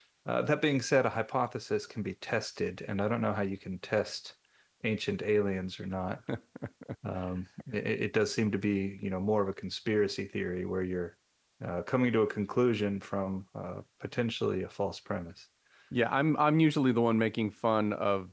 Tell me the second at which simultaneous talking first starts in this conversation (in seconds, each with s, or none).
none